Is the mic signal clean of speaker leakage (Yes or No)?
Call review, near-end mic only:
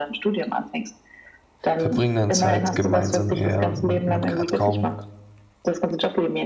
No